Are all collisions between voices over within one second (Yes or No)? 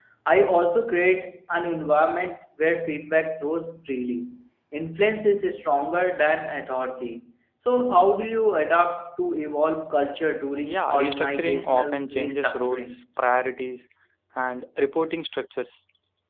No